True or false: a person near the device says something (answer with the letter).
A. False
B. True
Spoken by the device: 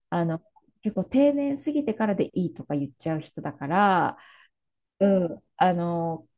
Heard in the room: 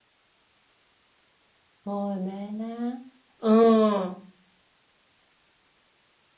B